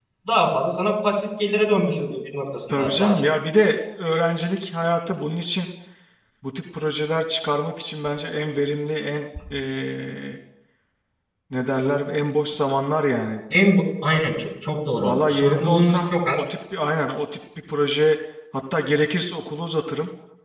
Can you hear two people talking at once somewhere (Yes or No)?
Yes